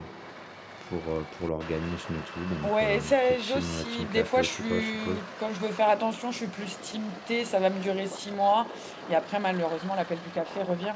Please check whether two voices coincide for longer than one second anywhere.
Yes, from 2.6 s

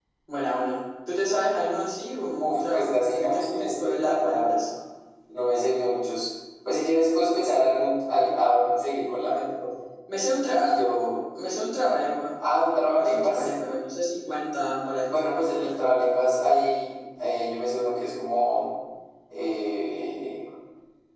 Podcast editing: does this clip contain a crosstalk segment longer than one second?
Yes, from 2.4 s

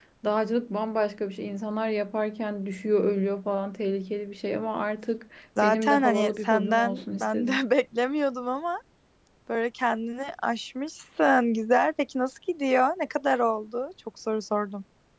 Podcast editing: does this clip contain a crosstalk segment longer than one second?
Yes, from 5.6 s

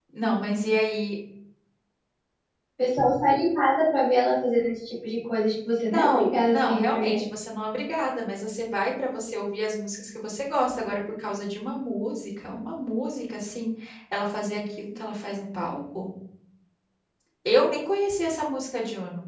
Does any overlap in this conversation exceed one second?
Yes, from 5.9 s

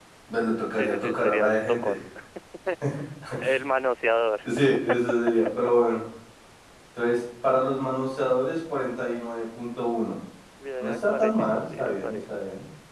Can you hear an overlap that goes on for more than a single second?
Yes, from 0.7 s

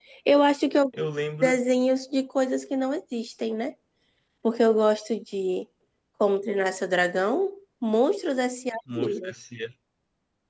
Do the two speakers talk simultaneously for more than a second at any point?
No

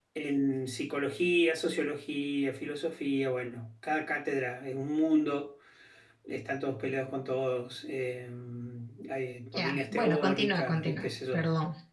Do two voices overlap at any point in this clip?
Yes, from 9.5 s

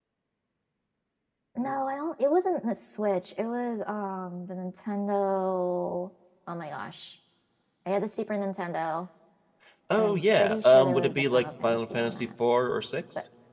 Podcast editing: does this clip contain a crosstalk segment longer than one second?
Yes, from 10.0 s

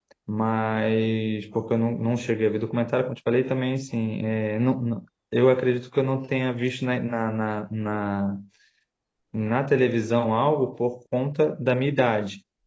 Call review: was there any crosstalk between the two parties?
No

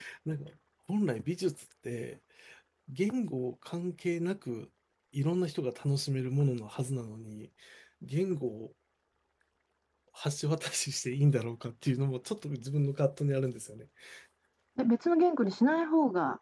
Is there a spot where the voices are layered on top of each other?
No

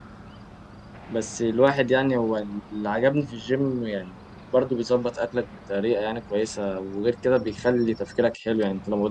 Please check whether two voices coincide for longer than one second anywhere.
No

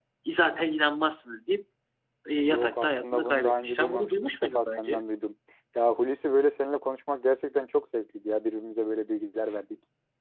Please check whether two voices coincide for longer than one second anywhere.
Yes, from 2.3 s

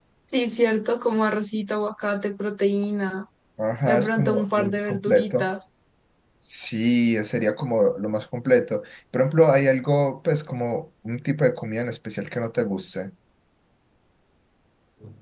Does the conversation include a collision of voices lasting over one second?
Yes, from 3.9 s

